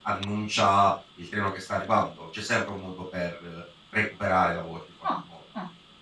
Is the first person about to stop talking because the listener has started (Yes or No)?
Yes